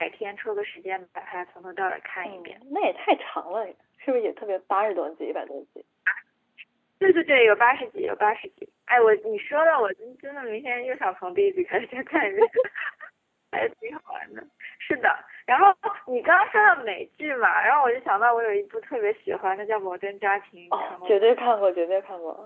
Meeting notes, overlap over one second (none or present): none